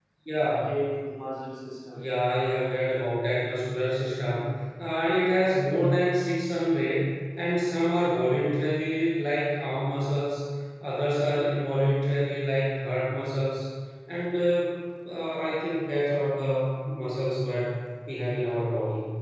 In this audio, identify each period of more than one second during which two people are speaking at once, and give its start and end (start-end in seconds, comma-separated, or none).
none